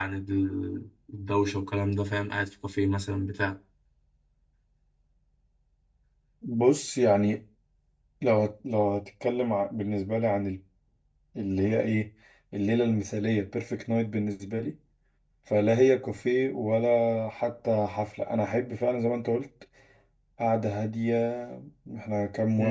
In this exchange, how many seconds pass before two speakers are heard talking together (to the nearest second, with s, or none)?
none